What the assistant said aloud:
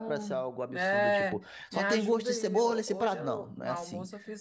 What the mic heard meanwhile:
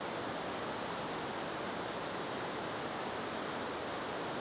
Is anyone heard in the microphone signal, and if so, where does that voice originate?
neither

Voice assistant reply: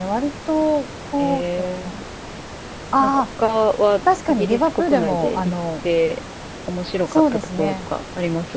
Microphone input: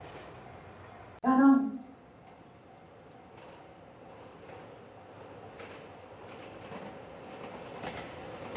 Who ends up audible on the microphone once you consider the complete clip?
user only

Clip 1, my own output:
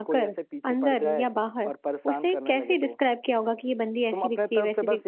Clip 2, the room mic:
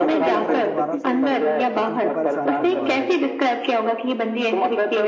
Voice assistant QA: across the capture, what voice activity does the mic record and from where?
both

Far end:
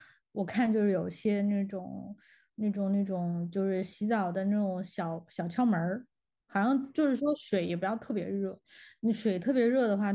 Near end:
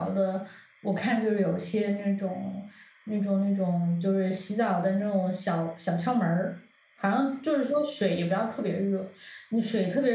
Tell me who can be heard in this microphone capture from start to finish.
echo only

